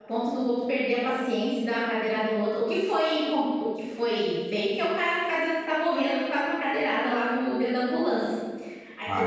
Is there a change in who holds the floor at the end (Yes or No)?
Yes